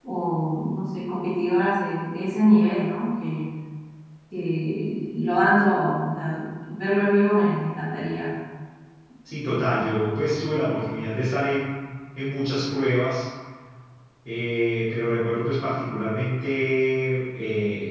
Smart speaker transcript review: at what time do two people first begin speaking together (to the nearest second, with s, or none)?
none